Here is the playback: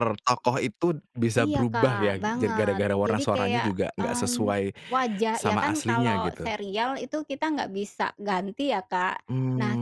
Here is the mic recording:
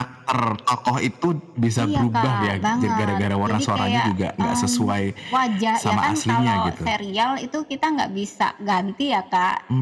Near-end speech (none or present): none